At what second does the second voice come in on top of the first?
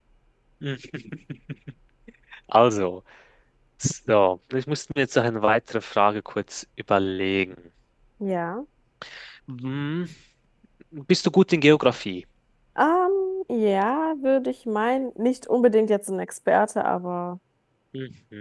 none

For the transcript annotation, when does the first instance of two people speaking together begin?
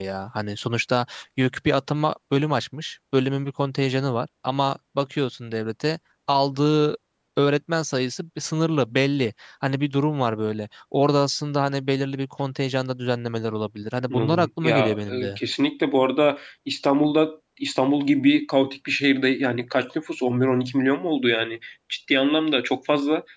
14.1 s

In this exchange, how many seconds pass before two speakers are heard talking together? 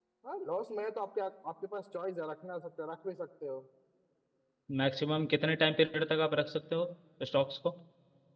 none

